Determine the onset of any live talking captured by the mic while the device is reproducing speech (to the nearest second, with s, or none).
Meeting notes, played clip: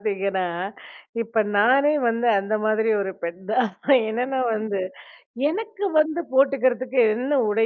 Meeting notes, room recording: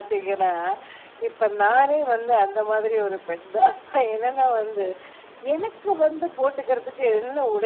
none